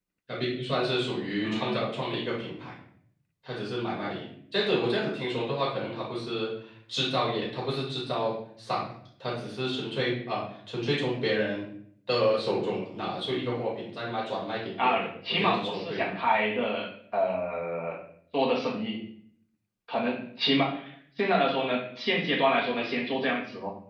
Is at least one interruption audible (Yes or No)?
Yes